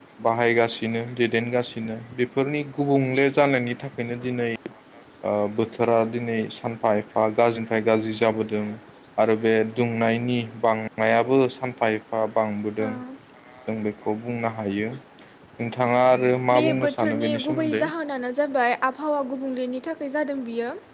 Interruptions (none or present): present